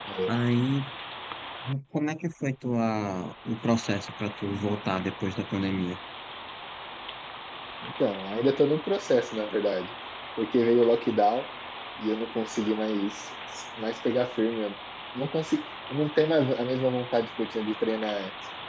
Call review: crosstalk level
none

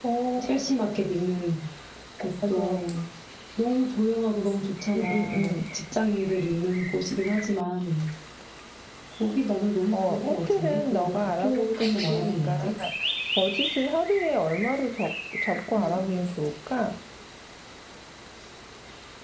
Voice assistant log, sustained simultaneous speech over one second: present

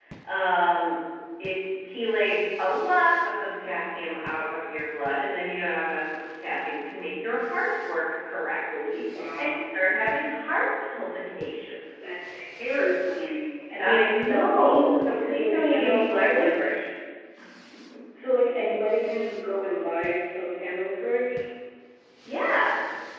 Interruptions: present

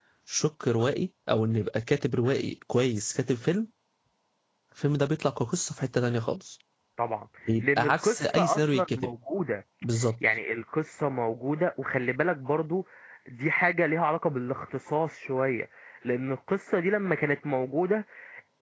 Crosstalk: present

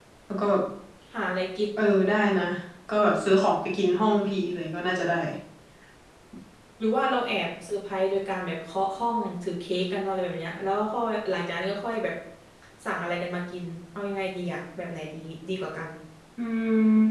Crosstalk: none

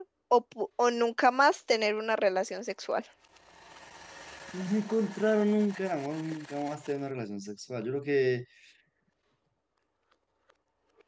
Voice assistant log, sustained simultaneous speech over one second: none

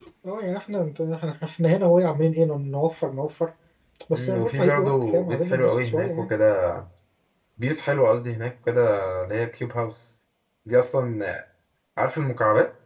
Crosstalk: present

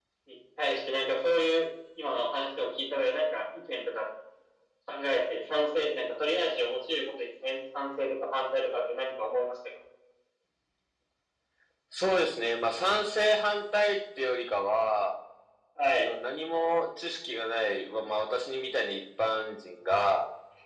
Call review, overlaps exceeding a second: none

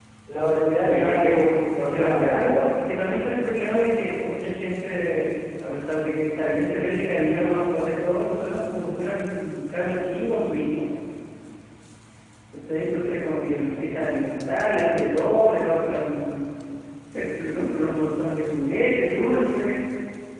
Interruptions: present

